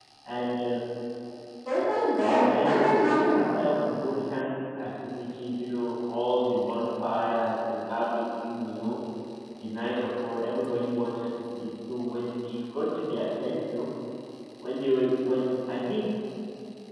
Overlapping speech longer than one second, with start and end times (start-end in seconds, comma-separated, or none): 2.2-3.5